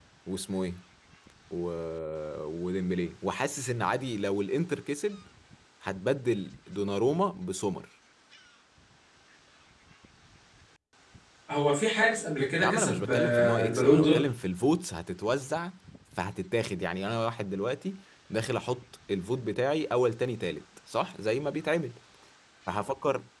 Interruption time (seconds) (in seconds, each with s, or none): 12.6 s